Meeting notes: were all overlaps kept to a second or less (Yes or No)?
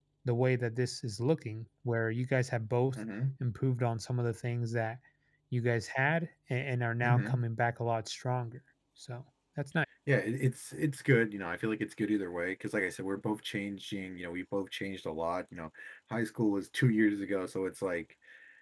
Yes